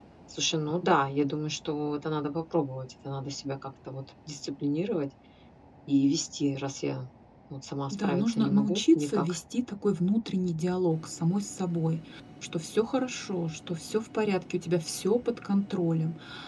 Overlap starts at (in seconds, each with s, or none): 7.9 s